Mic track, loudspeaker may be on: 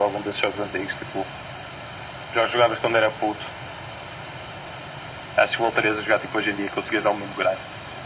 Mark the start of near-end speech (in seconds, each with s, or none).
none